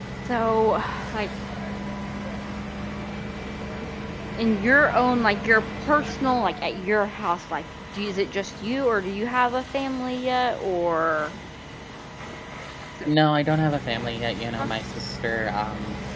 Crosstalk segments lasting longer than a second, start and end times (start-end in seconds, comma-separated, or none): none